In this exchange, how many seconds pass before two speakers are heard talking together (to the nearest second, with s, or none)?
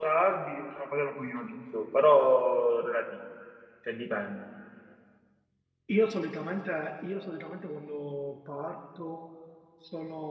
none